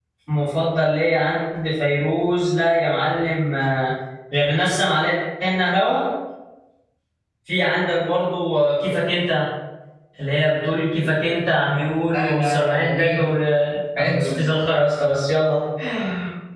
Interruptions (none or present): present